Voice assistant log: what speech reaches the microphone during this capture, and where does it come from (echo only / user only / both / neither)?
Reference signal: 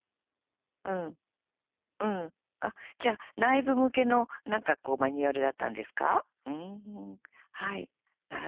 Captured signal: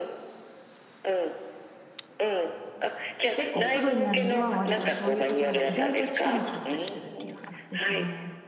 both